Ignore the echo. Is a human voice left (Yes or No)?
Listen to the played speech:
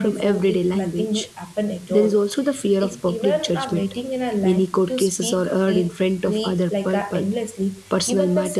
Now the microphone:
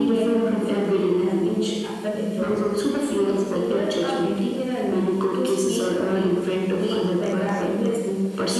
No